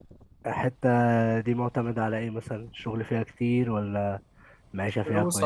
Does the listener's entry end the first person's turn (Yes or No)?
Yes